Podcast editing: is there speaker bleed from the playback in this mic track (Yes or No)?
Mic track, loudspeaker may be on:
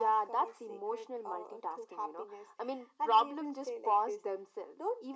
Yes